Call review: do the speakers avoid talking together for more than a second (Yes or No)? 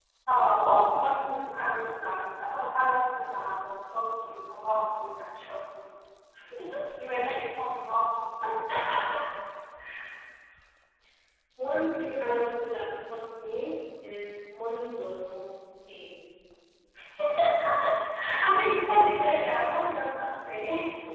Yes